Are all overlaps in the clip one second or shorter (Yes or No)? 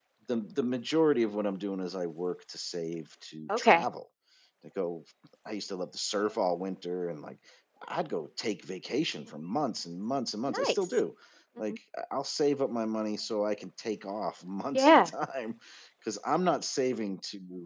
Yes